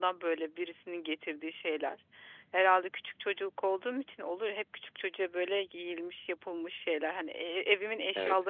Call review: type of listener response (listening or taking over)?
listening